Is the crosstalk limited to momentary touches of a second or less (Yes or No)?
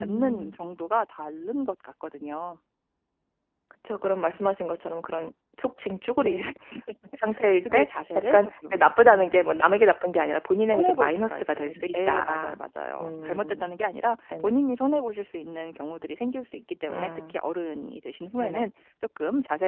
No